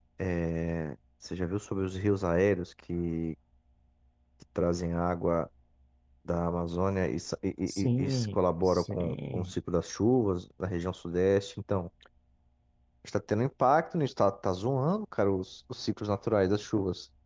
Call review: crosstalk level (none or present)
present